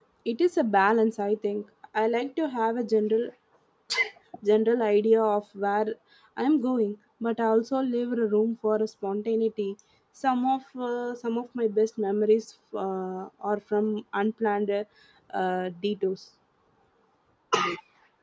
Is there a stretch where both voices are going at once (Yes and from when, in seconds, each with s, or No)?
No